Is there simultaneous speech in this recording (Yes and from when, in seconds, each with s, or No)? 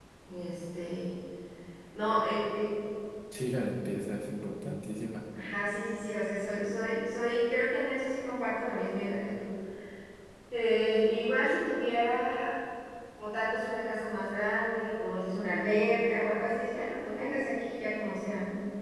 No